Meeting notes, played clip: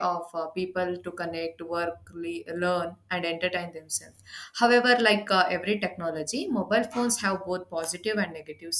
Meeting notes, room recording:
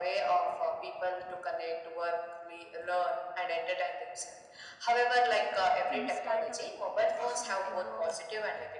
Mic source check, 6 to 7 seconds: both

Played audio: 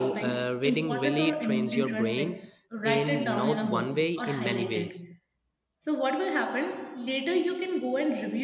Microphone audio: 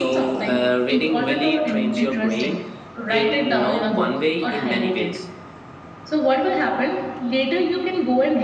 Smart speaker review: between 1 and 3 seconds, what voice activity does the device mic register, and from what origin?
echo only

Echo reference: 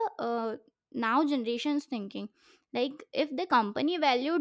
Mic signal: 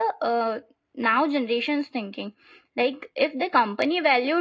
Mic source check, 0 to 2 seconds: echo only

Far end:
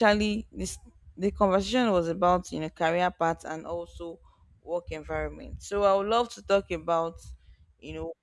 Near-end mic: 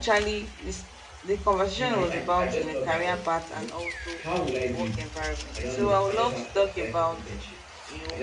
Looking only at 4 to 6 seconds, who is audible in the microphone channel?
both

